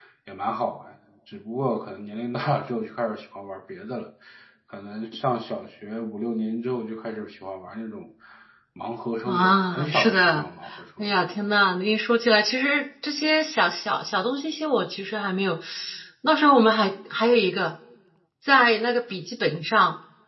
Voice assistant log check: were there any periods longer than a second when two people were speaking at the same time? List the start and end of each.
9.3-10.5

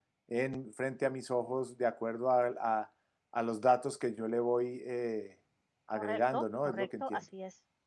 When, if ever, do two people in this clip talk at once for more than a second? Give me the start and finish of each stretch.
6.0-7.2

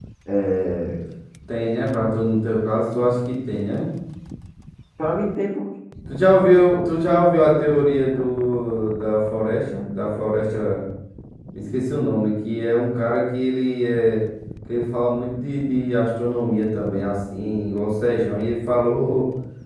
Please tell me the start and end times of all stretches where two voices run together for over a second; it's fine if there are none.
none

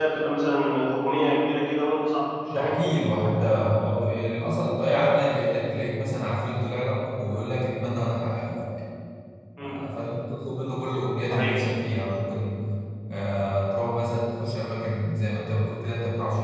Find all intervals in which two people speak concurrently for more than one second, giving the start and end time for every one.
none

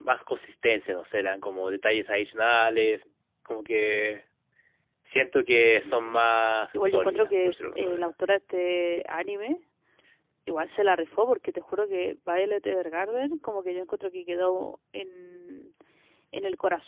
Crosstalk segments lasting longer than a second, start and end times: 6.8-8.1

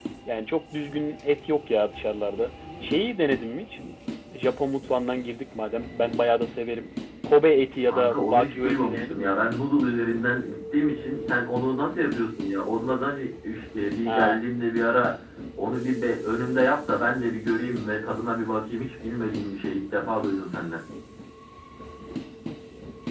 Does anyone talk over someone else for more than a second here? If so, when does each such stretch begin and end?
7.9-9.3

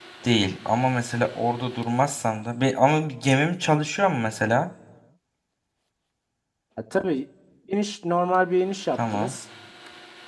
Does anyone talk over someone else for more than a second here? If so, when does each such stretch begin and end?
none

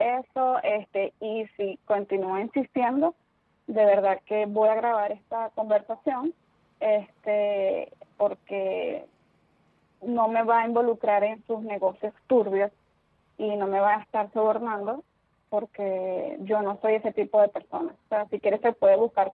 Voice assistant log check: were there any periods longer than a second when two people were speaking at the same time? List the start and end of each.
none

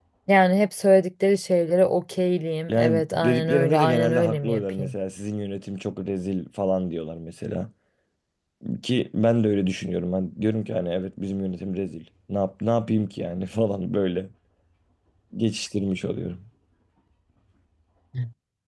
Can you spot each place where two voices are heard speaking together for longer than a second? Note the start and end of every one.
2.7-5.0

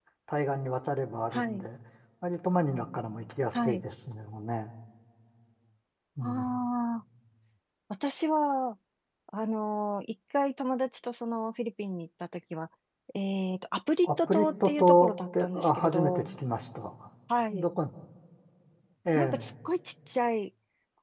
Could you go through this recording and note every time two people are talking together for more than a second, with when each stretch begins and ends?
14.0-16.4

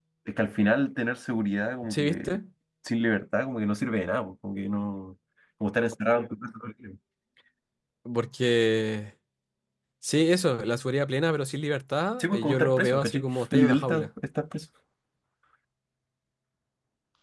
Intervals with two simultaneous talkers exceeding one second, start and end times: 12.2-14.1

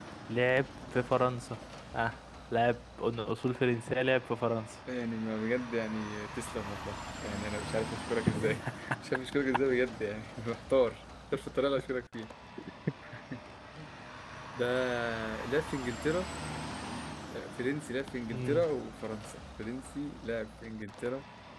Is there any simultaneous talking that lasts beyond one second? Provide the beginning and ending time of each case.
none

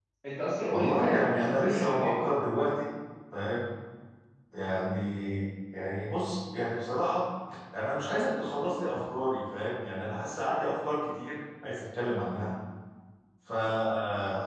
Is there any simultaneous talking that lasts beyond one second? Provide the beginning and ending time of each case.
0.7-2.2

